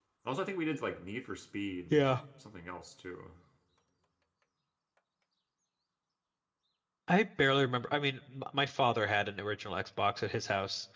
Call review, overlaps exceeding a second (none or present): none